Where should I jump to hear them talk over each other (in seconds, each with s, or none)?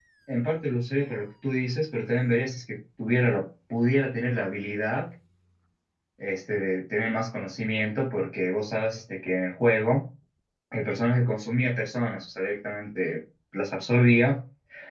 none